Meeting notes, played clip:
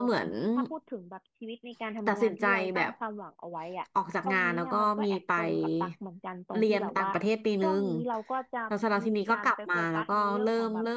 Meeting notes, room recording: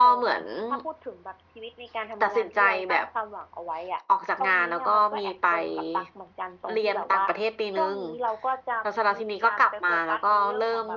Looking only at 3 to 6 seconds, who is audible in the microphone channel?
echo only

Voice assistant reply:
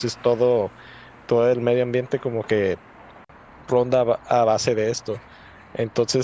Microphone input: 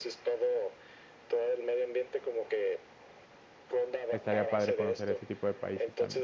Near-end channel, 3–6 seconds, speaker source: both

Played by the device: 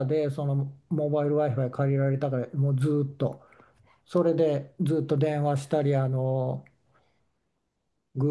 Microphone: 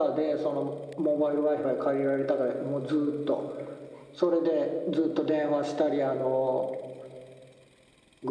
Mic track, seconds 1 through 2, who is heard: echo only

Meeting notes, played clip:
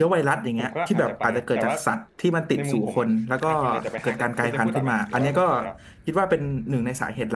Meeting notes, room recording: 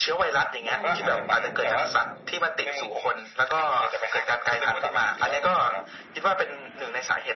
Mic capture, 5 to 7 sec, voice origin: echo only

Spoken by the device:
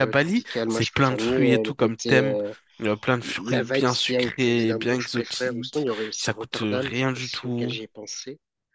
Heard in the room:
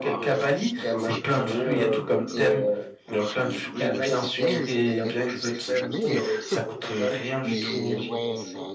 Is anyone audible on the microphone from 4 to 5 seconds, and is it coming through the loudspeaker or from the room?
both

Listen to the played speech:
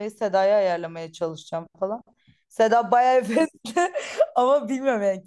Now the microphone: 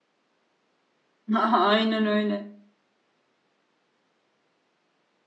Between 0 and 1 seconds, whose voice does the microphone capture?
neither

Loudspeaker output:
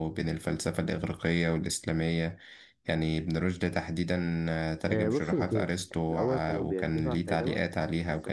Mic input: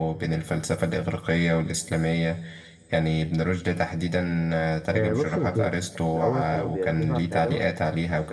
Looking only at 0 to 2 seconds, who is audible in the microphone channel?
echo only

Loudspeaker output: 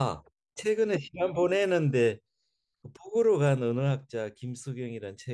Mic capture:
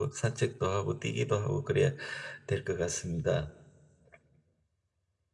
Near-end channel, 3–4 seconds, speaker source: user only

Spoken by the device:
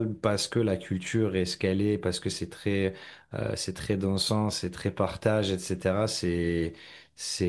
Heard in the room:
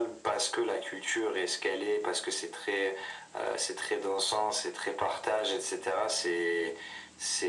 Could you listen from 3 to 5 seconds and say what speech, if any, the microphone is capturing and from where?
echo only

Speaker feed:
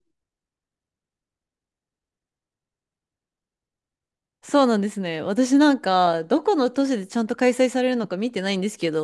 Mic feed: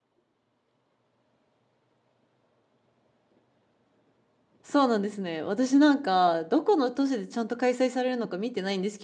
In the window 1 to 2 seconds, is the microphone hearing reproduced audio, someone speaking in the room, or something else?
neither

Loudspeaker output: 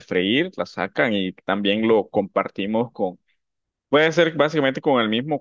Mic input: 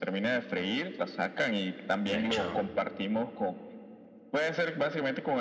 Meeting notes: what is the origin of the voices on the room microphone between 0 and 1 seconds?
echo only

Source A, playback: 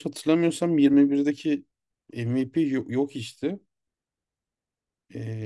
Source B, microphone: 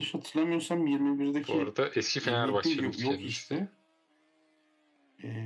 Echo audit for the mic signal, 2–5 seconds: both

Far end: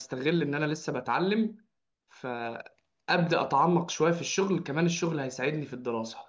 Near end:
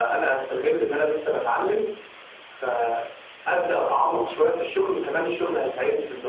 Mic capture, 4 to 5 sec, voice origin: echo only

